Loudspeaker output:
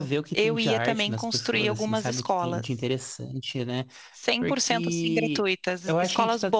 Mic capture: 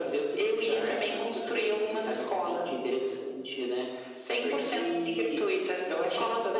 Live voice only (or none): none